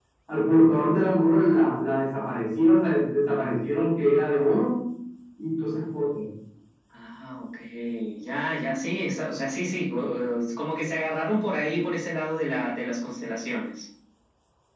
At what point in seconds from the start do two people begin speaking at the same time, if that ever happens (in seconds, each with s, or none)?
none